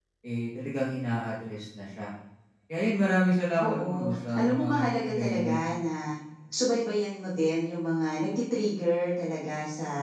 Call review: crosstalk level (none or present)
present